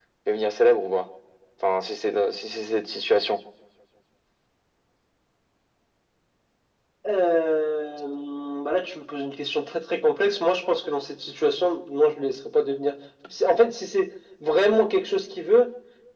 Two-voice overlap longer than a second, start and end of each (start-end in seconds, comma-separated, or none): none